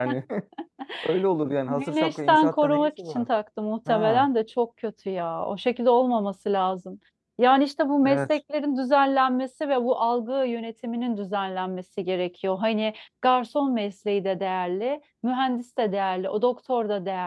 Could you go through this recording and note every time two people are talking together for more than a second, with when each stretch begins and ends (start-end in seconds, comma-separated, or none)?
1.7-3.3